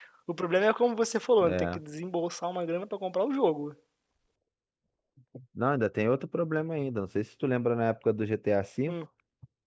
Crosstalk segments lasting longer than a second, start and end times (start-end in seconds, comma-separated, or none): none